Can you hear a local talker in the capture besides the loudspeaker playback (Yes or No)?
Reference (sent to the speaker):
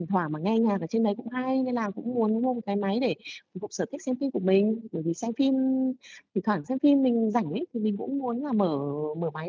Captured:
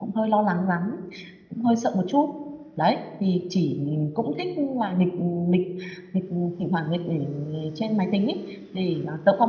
Yes